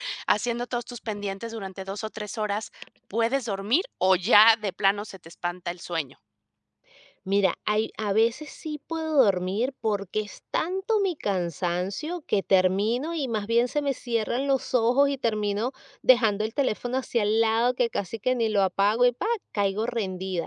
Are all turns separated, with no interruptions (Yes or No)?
Yes